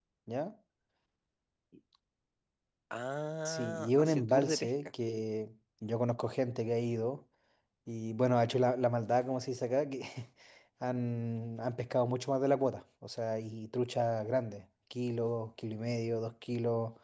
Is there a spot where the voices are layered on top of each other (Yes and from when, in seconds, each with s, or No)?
Yes, from 3.4 s